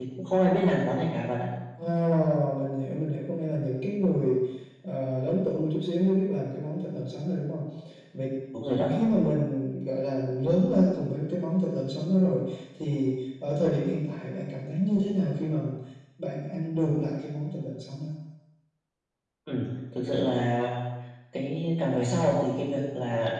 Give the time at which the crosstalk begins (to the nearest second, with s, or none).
none